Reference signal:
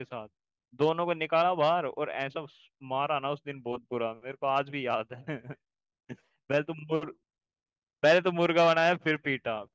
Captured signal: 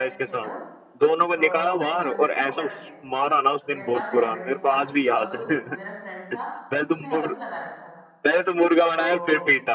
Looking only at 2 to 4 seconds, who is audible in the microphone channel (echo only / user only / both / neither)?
both